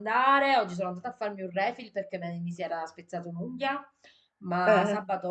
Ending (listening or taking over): listening